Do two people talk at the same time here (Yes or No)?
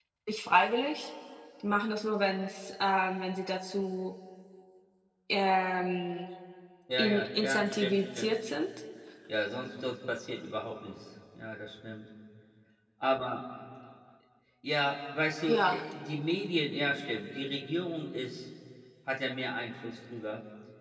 Yes